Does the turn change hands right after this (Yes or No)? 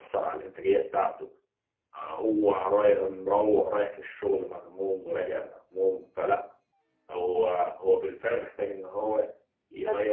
No